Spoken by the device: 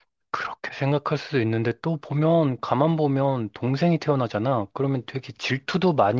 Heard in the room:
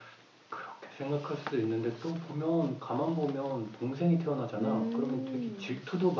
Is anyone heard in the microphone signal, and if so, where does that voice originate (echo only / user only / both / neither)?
both